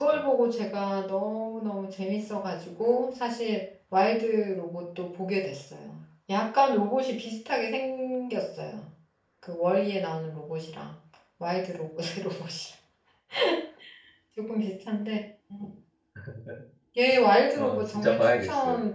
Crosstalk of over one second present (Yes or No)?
Yes